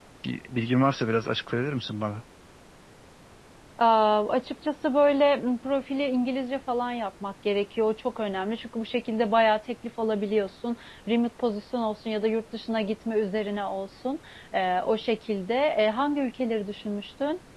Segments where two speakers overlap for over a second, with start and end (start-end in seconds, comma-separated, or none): none